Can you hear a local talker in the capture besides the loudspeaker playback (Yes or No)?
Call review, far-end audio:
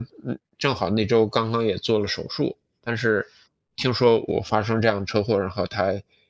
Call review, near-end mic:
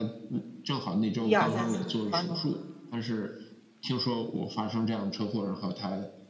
Yes